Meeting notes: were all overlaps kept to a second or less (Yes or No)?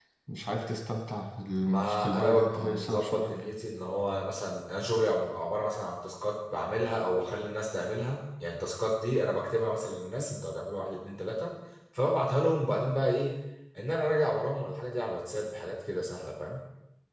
No